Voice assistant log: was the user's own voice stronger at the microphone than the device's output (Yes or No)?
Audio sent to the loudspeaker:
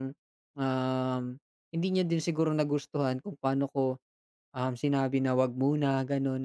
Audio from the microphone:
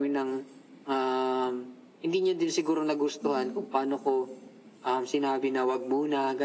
No